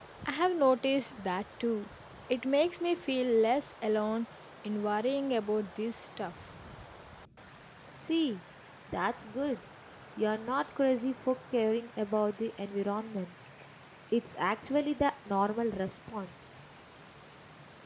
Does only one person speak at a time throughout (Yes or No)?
Yes